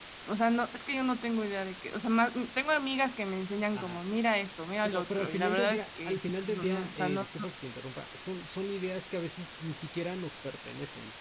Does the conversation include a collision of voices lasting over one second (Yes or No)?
Yes